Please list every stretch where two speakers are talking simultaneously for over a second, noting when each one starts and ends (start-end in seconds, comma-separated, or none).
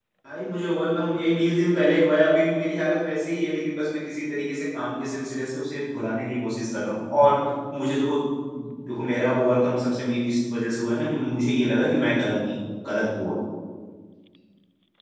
none